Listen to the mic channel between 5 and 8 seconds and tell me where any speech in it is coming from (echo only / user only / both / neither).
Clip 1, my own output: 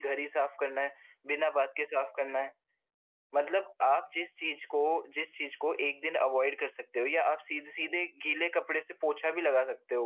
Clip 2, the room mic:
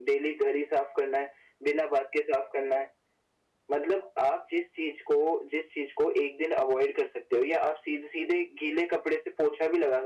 echo only